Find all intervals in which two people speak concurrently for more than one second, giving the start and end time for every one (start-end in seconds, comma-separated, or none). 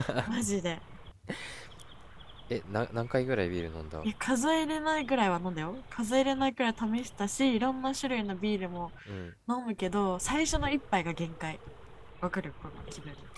none